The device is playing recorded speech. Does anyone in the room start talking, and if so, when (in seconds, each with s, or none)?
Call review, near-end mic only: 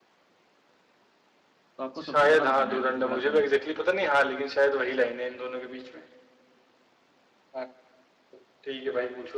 1.8 s